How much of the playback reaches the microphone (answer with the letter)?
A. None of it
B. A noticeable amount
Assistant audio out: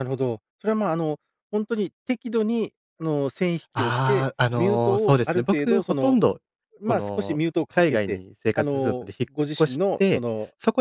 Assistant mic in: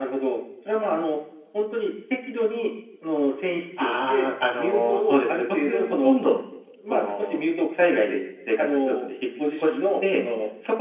B